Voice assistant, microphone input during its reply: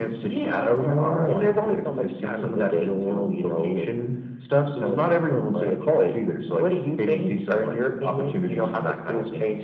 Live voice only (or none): none